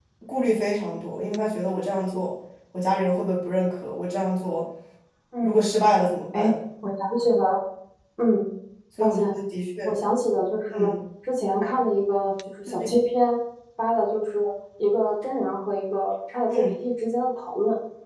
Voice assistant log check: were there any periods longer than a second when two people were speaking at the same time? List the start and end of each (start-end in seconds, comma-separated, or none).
none